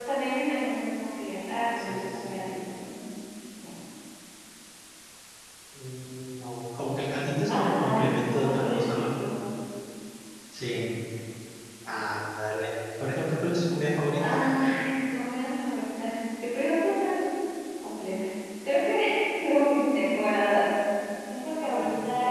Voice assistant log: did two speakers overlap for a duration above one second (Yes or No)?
Yes